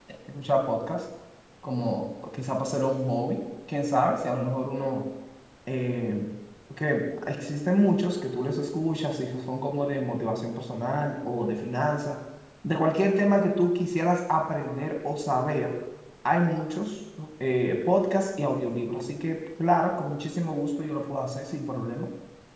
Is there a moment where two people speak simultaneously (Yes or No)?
No